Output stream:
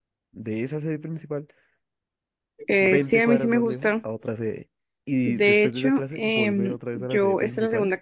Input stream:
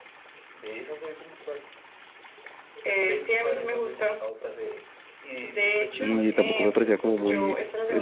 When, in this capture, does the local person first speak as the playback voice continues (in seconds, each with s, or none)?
6.0 s